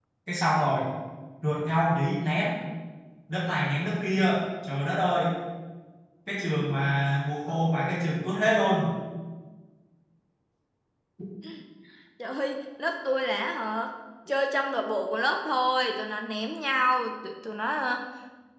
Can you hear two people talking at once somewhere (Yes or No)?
No